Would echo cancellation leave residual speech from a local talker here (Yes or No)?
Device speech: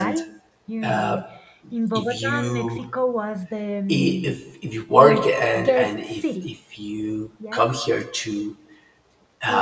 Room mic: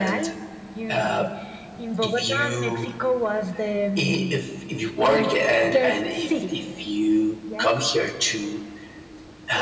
No